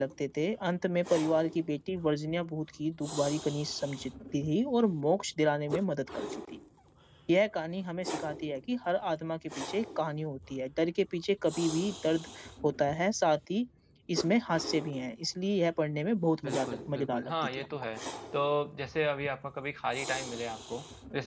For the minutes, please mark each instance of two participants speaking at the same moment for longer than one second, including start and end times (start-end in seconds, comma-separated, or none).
16.4-17.7